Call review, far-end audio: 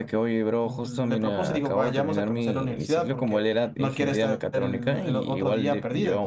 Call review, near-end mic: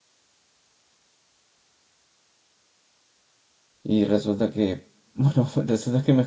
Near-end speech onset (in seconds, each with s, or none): 3.8 s